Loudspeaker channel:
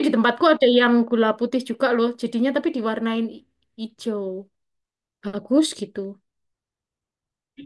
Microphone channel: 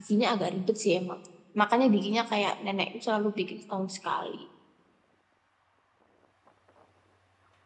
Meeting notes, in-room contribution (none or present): present